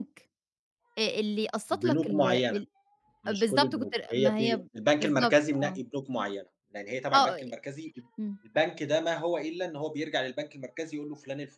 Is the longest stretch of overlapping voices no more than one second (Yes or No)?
No